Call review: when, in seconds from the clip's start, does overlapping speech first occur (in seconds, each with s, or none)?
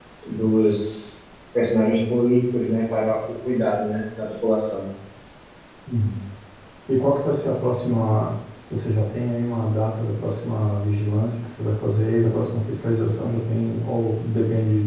none